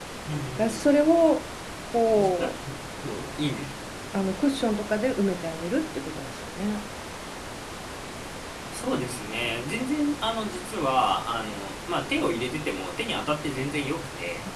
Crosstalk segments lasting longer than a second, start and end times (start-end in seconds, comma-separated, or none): none